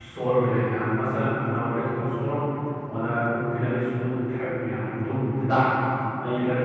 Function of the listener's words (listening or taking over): listening